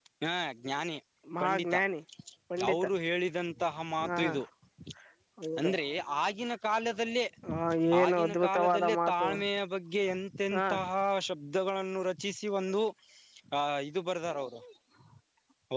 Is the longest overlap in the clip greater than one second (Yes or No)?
Yes